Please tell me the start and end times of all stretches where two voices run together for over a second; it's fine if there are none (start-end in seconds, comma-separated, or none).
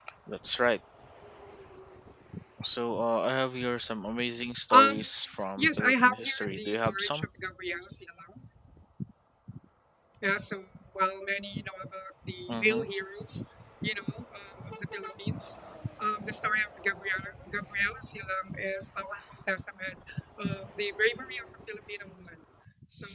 5.6-7.2